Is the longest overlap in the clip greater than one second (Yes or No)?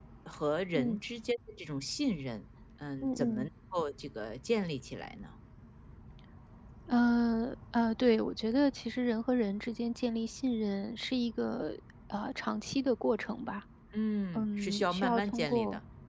Yes